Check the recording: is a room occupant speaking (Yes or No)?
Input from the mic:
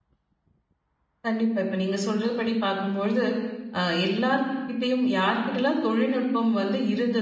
Yes